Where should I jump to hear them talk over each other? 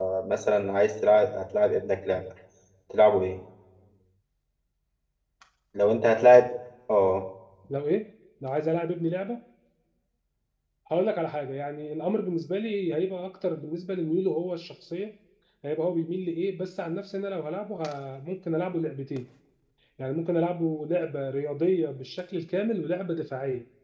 none

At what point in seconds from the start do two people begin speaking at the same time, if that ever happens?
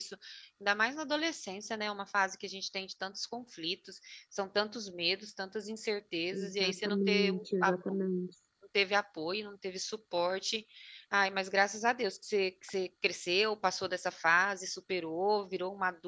6.3 s

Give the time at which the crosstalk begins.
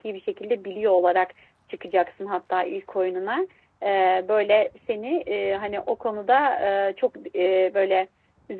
none

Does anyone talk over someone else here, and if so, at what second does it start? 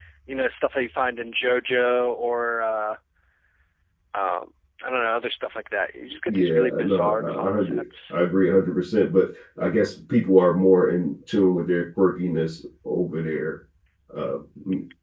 6.3 s

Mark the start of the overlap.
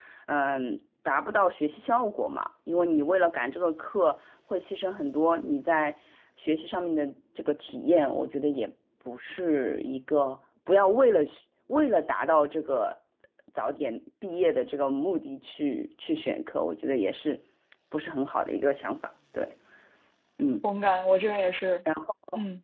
none

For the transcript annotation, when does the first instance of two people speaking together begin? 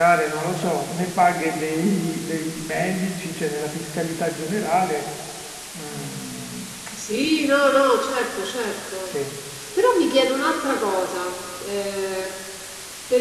none

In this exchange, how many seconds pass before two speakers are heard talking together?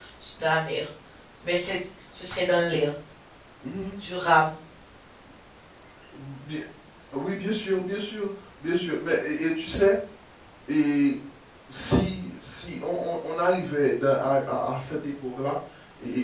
none

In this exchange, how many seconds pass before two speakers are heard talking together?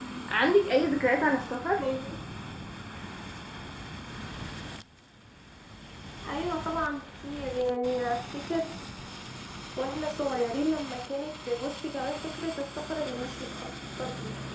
none

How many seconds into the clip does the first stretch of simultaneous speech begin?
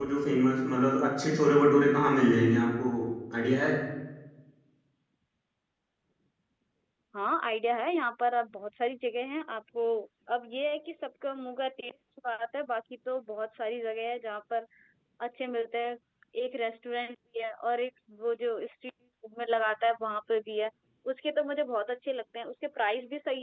none

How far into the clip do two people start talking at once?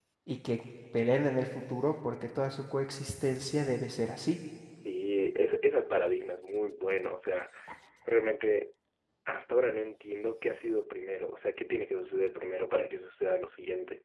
none

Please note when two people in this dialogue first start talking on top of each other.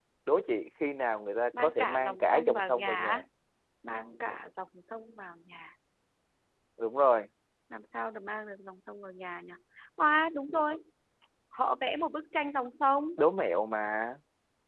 1.5 s

